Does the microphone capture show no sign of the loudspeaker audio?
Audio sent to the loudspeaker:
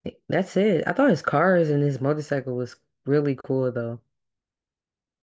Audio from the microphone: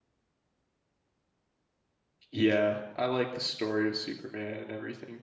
Yes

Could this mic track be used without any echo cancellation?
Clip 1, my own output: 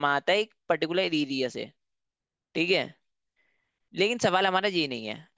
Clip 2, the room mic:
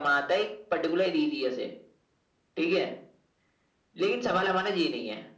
No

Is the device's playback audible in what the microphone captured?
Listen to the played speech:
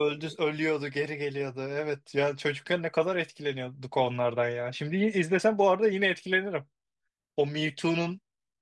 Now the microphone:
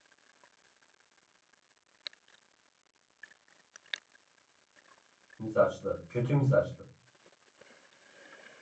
No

